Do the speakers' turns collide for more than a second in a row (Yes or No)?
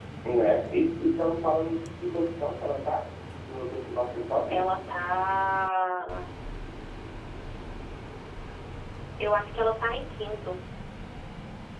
No